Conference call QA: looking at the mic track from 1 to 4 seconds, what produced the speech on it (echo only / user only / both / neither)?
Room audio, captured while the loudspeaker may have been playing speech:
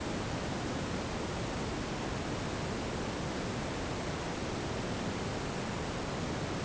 neither